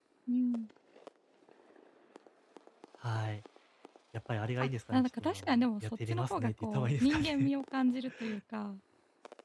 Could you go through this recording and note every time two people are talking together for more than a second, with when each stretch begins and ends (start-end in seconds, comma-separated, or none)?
4.6-7.5